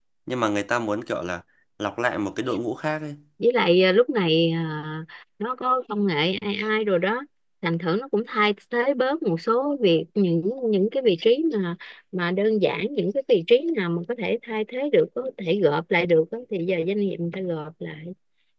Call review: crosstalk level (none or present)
none